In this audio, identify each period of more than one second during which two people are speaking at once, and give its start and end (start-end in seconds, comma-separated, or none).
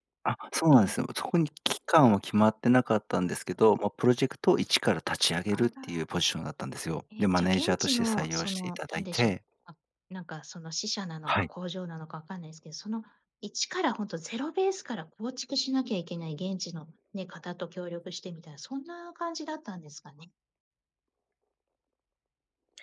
7.2-9.3